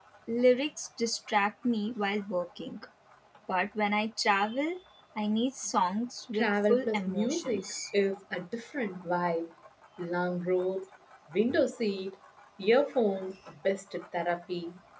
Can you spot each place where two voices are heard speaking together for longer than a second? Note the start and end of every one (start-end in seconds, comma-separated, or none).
6.3-7.6